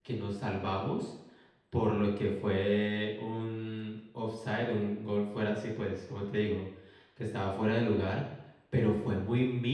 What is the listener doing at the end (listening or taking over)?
listening